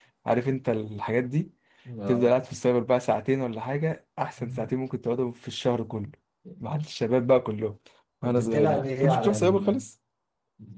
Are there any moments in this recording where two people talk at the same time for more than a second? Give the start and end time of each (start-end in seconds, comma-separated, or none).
8.2-9.8